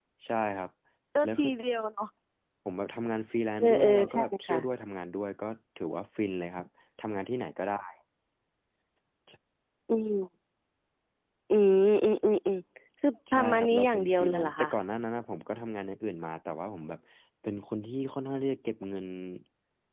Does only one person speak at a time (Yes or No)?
No